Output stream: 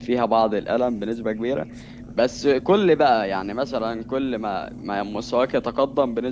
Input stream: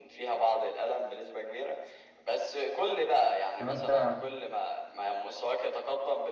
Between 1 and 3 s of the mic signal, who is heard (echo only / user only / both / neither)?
echo only